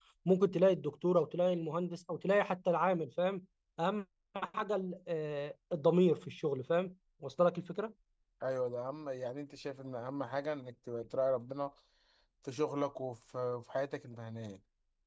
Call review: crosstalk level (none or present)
none